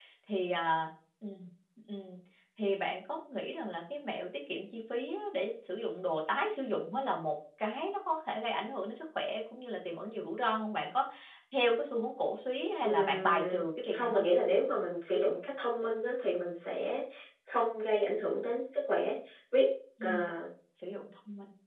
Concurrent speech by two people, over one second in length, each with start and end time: 12.8-14.2

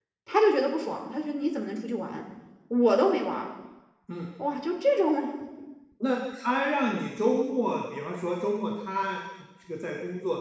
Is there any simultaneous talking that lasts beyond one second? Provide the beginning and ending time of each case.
none

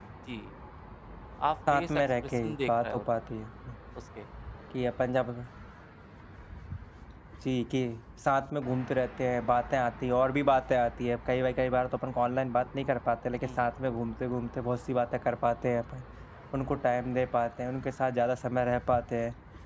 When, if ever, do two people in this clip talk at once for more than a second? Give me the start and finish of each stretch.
1.7-3.0

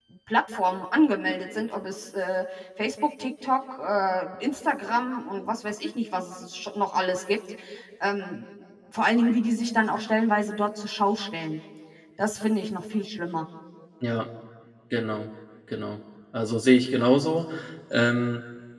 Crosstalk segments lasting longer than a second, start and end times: none

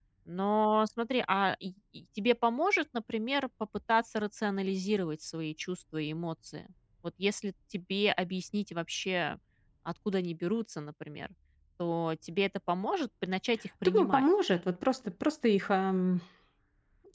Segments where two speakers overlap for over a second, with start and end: none

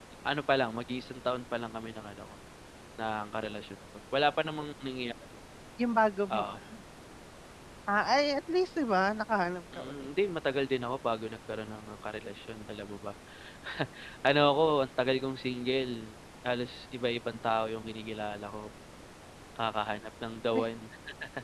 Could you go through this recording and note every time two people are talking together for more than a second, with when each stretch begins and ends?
none

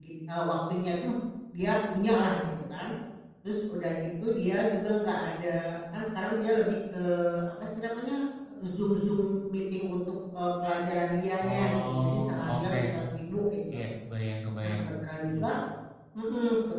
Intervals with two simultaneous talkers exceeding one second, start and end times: 11.4-12.8

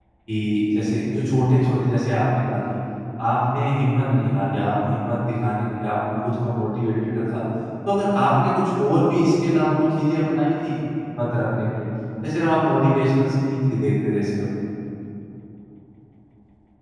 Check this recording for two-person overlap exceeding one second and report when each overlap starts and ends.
none

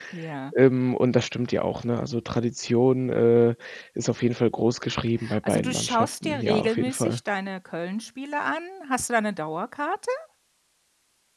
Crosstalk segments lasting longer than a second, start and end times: 5.5-7.2

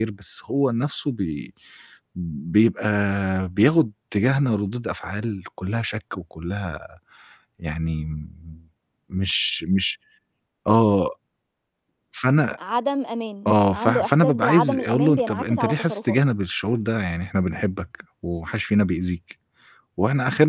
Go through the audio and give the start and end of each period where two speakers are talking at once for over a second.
13.4-16.2

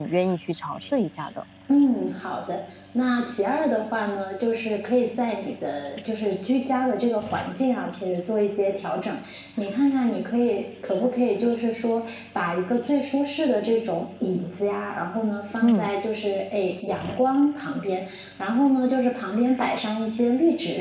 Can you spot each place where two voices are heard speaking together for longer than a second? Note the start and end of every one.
none

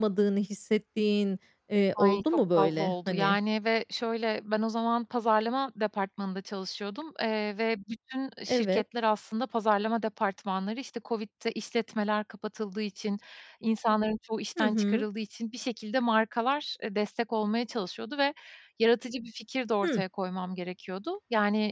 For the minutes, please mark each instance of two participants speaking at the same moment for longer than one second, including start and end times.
2.0-3.4

